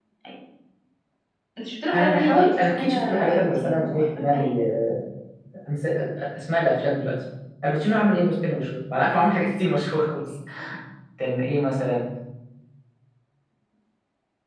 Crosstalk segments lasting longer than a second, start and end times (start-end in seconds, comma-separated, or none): 1.9-4.4